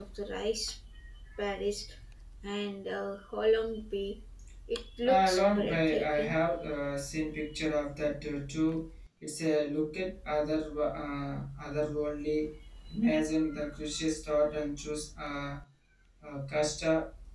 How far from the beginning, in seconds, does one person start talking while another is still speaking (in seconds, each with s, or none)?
5.0 s